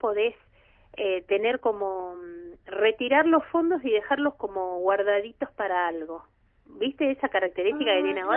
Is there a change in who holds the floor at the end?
Yes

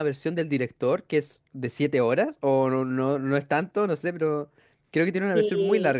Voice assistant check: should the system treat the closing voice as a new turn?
Yes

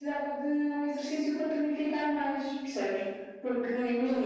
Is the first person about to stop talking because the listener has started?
No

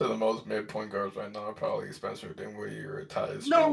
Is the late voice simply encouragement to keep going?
No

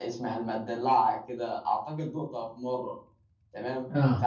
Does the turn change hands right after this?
No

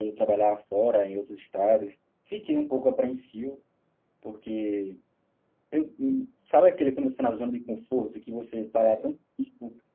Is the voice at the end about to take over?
No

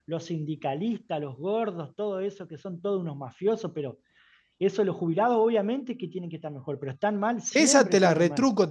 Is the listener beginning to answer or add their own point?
Yes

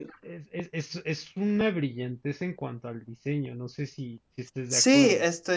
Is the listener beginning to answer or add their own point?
Yes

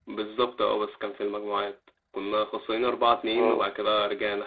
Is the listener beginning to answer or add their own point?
No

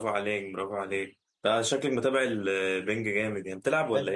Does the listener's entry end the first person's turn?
Yes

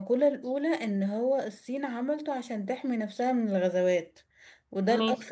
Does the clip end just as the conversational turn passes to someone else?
No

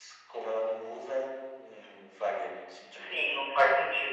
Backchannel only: No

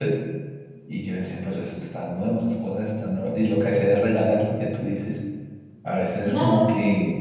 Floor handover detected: No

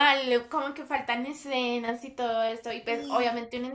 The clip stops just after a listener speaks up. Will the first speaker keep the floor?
Yes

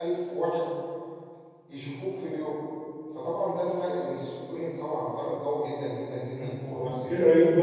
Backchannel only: No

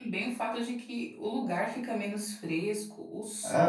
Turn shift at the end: Yes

